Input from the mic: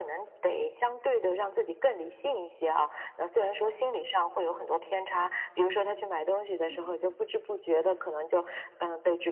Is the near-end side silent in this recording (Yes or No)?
No